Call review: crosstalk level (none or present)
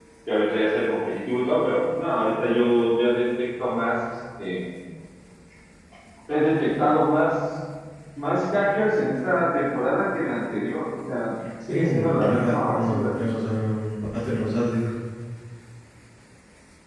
present